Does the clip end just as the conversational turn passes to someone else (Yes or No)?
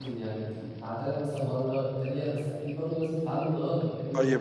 Yes